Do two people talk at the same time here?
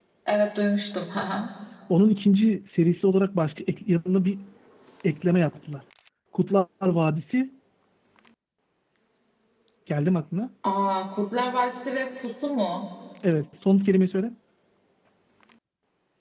No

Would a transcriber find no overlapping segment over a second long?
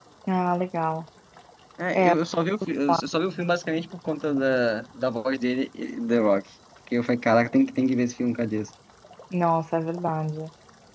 Yes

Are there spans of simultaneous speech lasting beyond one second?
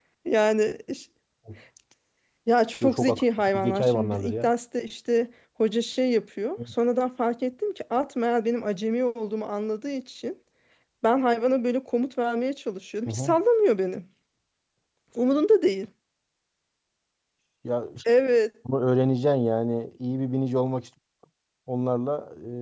Yes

